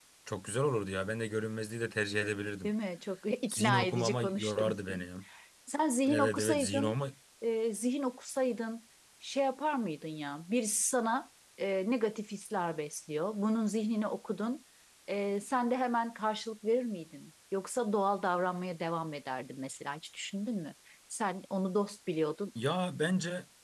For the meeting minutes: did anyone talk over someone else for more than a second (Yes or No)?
Yes